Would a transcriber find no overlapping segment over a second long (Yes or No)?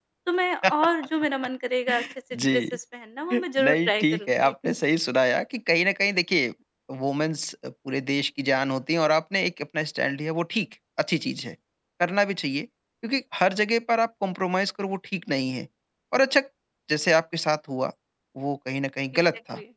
No